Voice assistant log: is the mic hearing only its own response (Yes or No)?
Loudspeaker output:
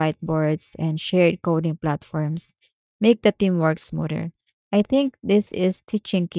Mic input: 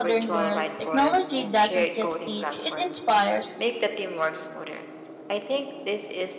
No